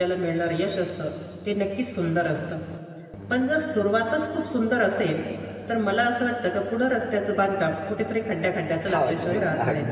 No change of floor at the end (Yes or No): No